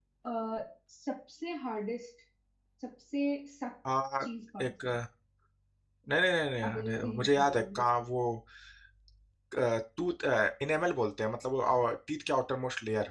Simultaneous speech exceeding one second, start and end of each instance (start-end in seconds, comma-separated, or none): 6.6-7.8